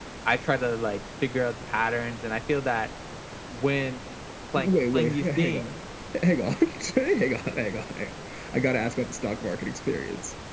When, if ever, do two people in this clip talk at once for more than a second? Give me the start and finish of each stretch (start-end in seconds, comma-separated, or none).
4.5-5.7